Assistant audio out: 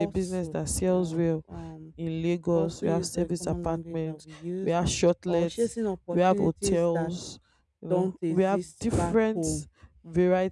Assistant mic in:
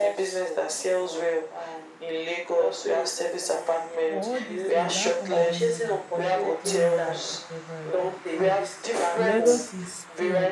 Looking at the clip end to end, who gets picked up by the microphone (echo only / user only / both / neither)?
both